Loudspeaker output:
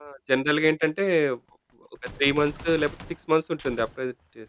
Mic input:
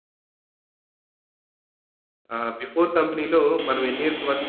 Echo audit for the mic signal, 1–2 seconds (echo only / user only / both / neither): neither